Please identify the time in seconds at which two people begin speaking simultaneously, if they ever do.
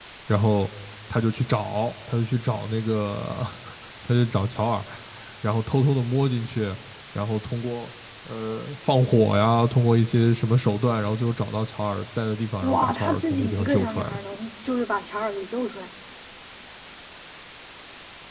12.6 s

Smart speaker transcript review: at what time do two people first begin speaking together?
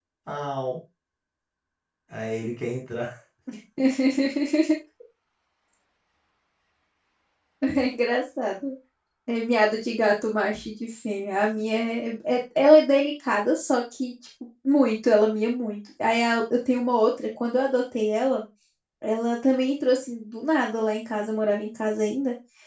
none

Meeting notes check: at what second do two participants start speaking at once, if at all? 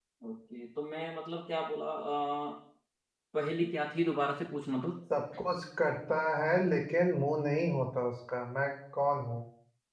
none

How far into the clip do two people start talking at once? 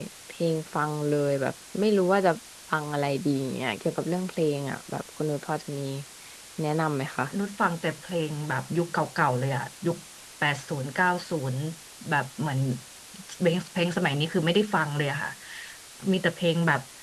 none

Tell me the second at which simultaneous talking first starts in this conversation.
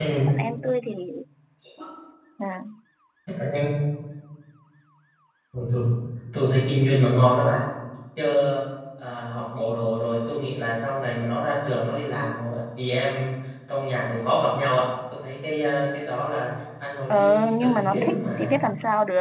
17.1 s

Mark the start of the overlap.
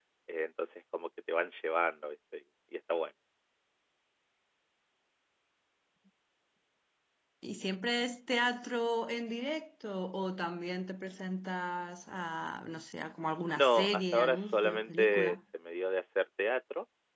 13.5 s

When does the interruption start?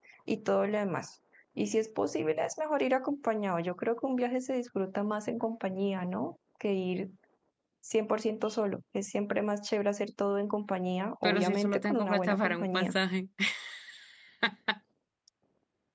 11.2 s

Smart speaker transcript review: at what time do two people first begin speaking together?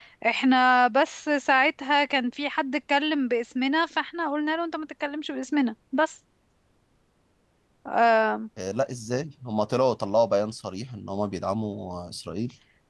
none

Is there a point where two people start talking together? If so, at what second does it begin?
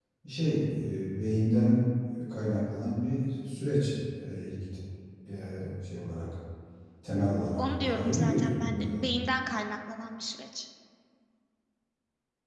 7.6 s

